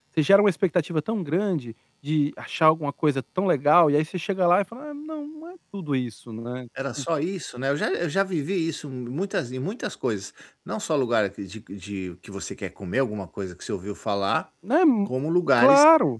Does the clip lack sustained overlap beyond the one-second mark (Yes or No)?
Yes